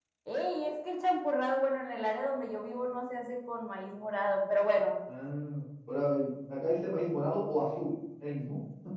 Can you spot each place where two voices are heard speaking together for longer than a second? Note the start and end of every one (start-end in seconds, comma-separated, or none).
none